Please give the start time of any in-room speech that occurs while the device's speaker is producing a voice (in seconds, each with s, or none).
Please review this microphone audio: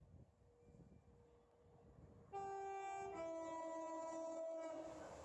none